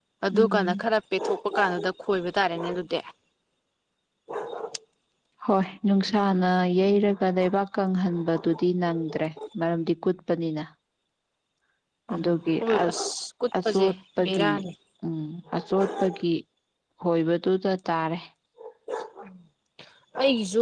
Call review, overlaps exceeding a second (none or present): none